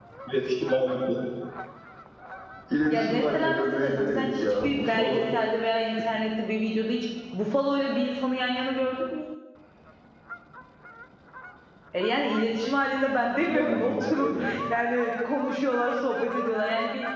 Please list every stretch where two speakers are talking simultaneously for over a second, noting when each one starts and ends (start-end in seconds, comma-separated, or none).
2.9-5.3, 13.4-14.6